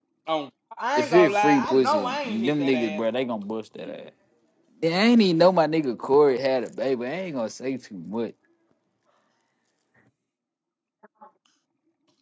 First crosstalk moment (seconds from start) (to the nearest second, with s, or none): 1 s